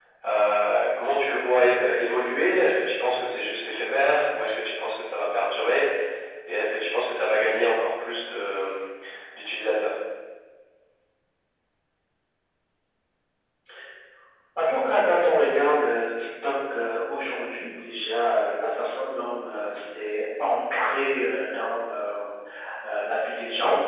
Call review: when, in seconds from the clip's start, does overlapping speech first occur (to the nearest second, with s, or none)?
none